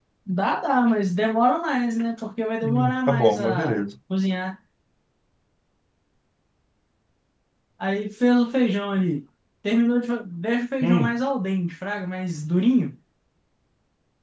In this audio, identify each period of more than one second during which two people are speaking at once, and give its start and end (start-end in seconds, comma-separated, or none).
2.6-3.8